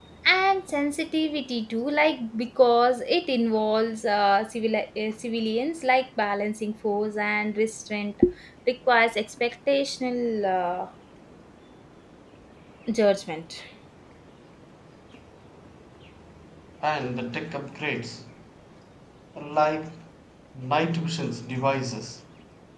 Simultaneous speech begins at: none

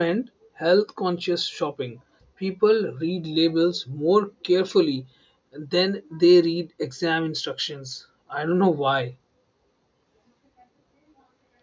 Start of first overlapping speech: none

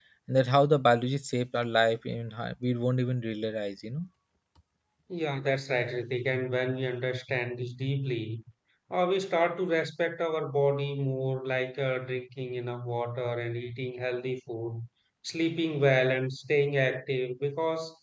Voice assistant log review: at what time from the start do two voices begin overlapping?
none

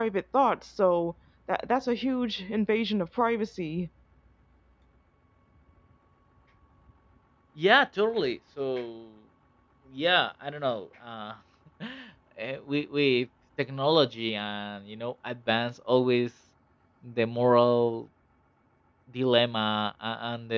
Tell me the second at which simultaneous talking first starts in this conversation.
none

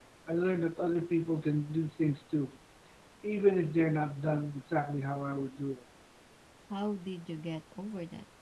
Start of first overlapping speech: none

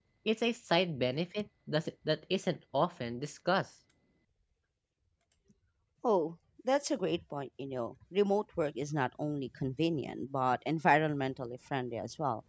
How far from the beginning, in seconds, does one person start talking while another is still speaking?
none

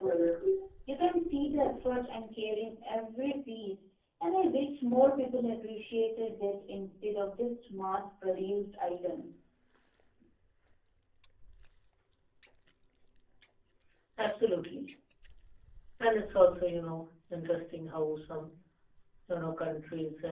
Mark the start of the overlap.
none

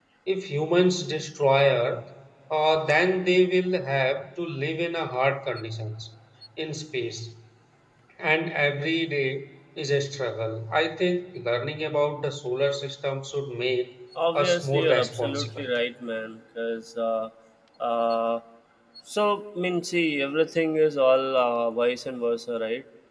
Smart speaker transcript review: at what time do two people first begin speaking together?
14.4 s

